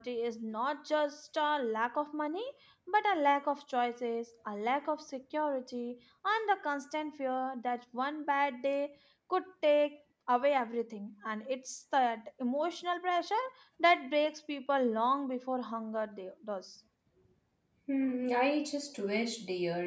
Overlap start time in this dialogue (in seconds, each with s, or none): none